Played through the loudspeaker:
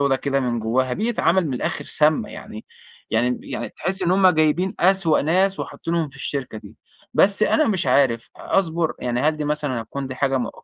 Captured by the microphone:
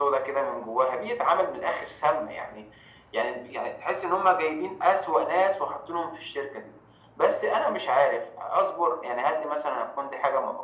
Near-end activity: none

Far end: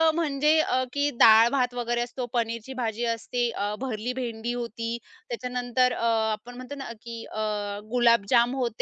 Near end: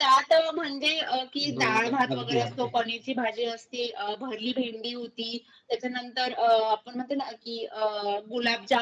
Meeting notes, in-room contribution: present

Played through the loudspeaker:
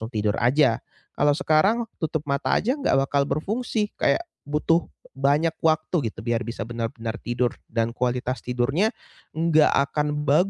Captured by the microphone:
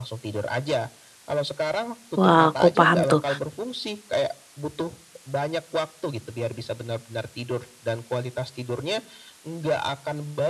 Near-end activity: present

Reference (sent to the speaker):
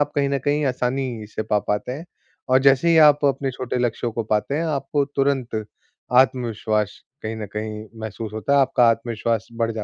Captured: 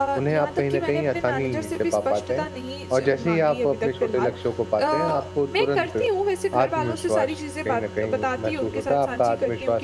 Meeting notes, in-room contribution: present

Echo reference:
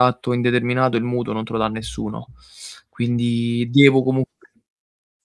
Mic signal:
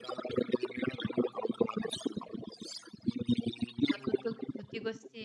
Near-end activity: present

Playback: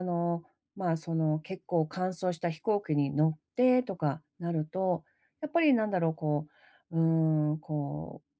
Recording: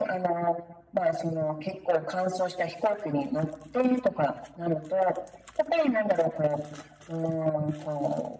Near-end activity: none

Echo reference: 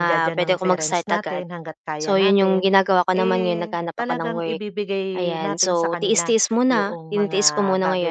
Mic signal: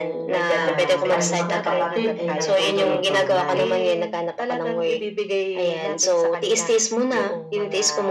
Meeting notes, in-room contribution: present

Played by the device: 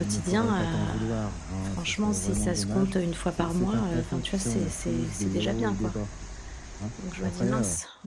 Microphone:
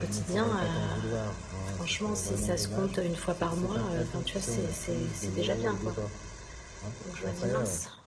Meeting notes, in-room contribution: none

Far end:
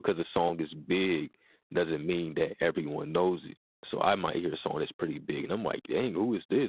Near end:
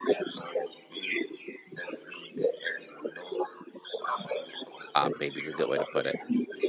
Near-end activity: present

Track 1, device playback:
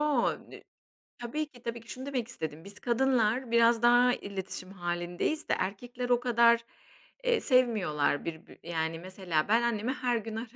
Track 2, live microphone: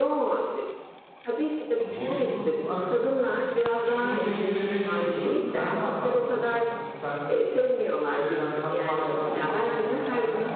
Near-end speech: present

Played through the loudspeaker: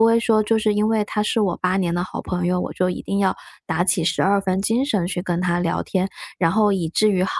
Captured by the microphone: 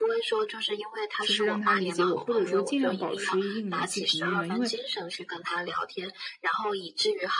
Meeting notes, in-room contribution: present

